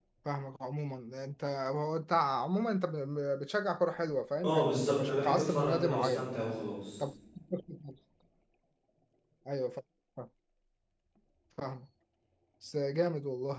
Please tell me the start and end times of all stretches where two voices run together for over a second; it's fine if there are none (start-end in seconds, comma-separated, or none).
4.4-6.3